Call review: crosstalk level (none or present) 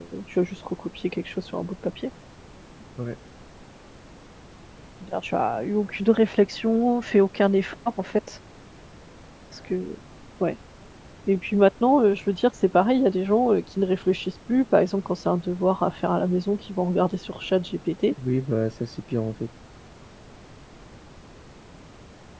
none